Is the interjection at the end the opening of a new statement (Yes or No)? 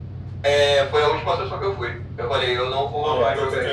Yes